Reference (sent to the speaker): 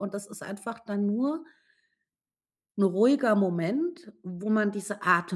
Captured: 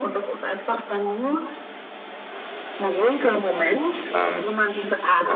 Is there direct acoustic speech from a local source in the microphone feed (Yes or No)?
Yes